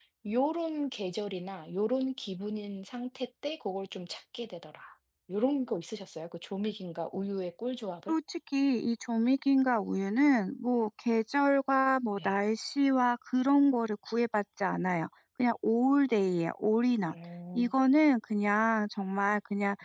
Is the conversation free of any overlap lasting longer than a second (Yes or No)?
Yes